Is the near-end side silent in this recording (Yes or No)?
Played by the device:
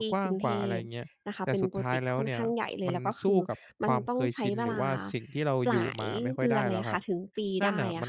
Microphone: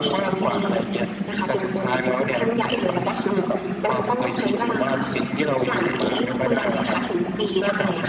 Yes